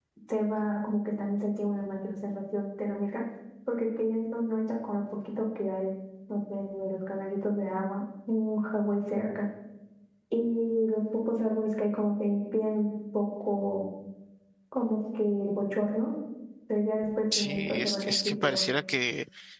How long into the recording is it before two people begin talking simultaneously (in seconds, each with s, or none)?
17.3 s